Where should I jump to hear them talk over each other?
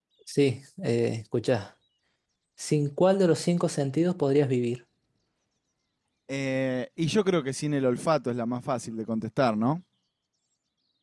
none

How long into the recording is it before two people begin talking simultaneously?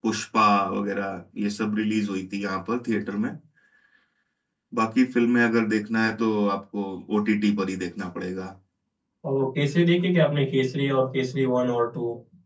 none

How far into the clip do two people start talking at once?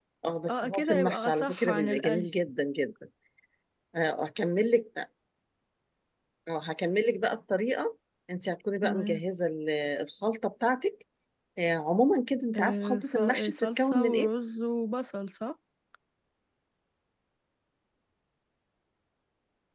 1 s

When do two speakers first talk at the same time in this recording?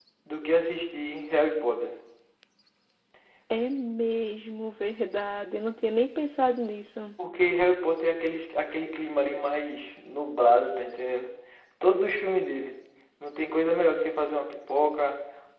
none

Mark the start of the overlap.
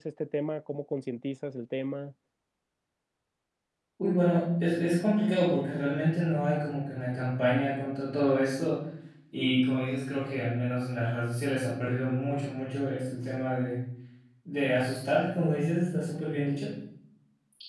none

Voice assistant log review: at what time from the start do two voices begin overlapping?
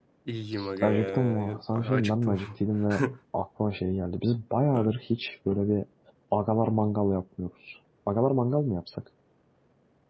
1 s

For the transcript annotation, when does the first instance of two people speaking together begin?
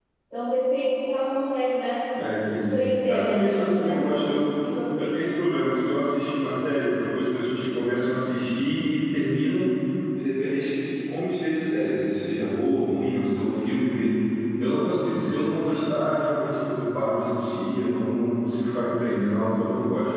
3 s

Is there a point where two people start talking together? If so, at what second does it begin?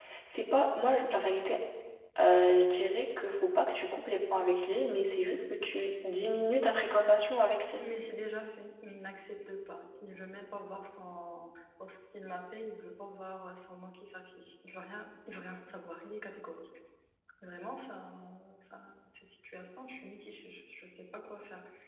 none

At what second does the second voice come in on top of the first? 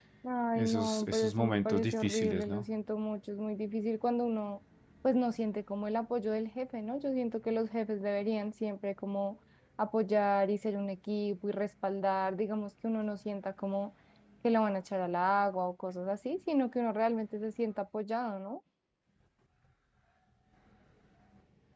1 s

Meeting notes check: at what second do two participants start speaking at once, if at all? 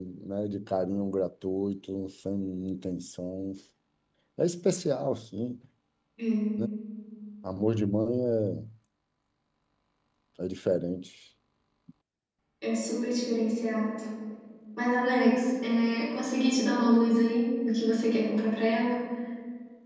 none

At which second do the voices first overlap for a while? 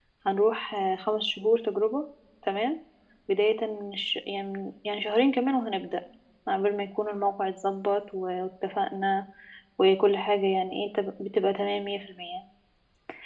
none

